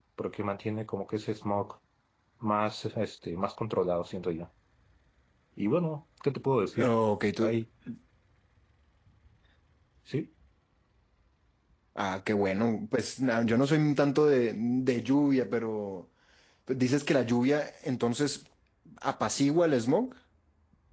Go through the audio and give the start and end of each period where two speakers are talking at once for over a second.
none

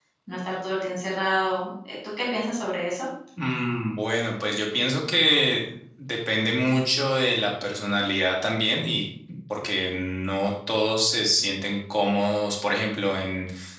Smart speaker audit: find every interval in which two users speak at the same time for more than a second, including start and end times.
none

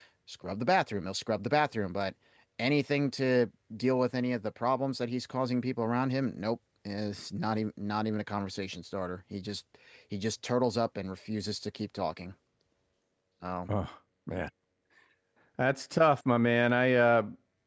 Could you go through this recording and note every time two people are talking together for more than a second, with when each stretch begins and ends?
none

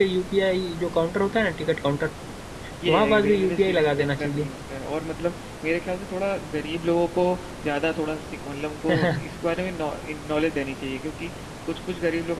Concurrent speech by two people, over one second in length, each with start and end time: 2.9-4.4

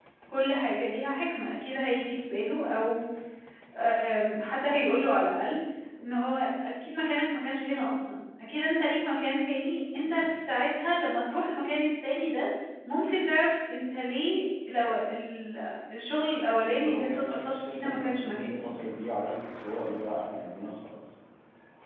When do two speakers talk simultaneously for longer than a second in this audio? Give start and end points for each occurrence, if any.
16.8-18.6

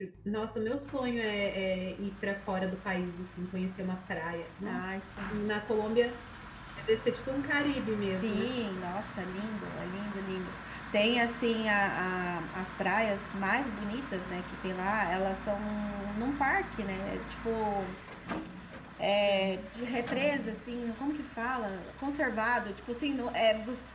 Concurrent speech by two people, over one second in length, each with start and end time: none

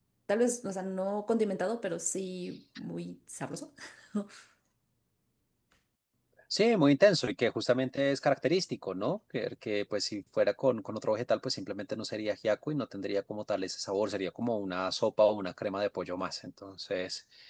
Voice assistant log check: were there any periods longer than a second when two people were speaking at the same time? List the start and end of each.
none

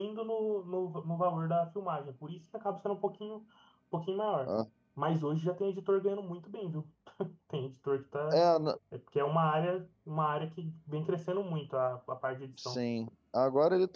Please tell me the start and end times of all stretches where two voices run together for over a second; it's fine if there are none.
none

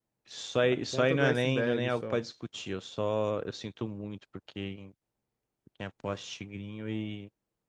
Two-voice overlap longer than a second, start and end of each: 0.7-2.2

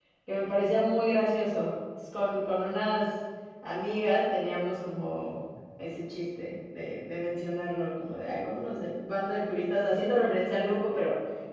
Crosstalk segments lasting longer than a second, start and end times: none

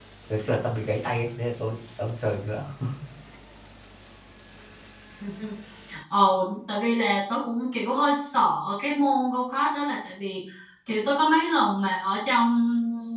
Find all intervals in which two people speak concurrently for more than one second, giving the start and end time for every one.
none

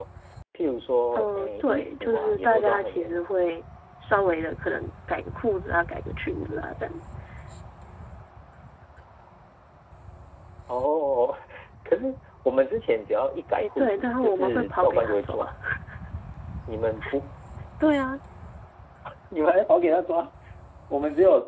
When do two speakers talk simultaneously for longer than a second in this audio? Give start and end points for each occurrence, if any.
1.1-3.3, 13.6-15.4

